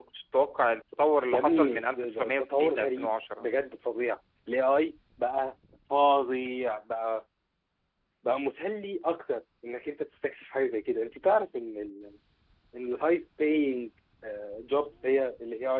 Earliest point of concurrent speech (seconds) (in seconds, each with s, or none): 1.3 s